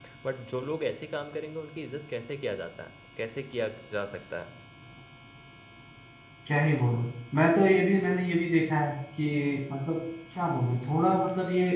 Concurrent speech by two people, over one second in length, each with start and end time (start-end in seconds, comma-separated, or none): none